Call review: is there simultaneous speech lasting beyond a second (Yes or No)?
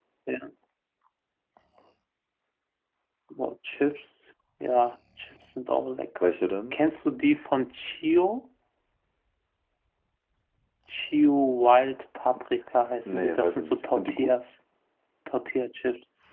Yes